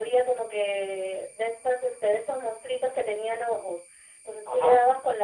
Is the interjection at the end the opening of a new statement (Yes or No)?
No